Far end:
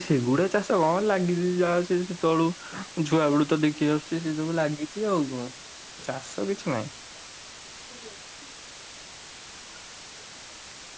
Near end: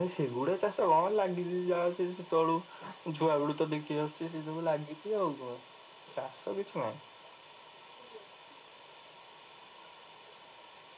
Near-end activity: none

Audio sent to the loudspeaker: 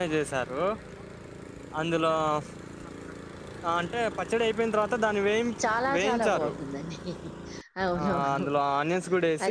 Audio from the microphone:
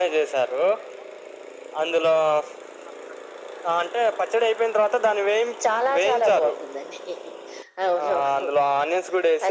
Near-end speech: none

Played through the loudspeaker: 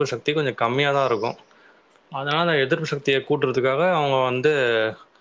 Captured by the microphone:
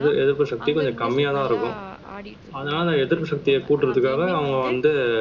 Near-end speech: present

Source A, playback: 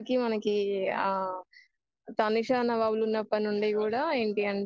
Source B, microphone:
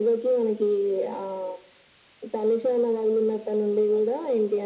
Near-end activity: none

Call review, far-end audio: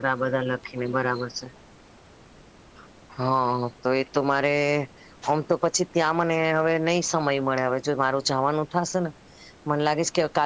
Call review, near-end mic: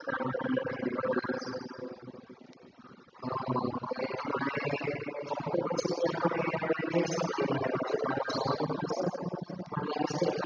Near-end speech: none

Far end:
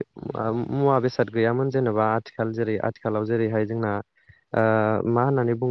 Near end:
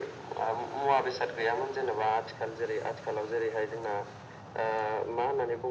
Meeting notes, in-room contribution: none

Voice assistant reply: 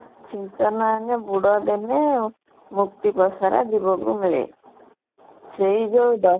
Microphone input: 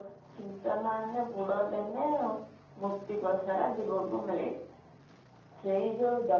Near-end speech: none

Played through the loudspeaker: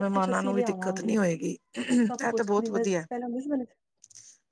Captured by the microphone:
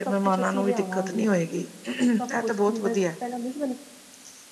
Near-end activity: none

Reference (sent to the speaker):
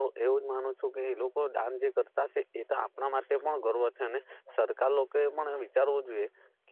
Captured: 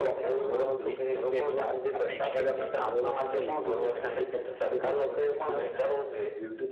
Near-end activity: present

